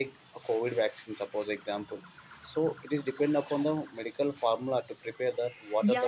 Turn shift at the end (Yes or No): Yes